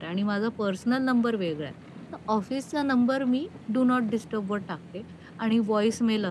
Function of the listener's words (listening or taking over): listening